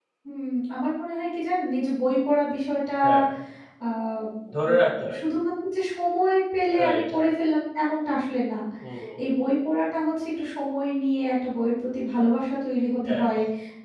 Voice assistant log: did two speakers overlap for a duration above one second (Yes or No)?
No